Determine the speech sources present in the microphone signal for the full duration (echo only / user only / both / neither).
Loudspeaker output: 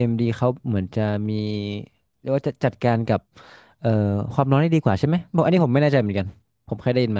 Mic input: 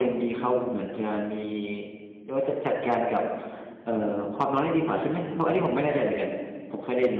echo only